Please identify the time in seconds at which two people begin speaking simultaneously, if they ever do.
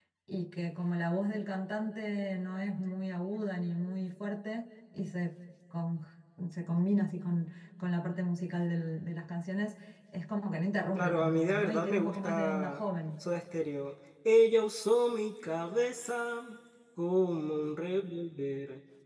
10.9 s

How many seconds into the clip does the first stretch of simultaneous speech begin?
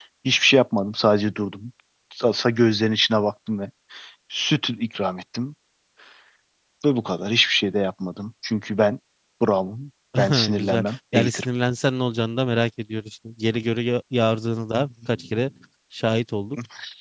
10.2 s

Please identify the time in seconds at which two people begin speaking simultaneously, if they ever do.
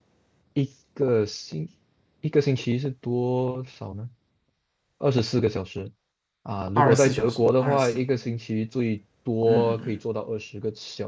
6.8 s

